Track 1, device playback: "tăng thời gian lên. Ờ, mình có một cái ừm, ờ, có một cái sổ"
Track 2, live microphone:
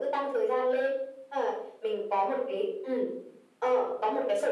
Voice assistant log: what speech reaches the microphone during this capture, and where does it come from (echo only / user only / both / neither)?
echo only